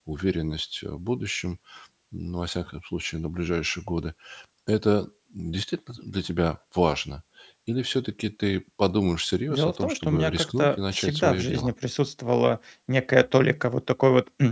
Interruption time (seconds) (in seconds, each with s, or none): 9.5 s